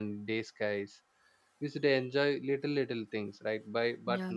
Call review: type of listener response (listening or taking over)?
listening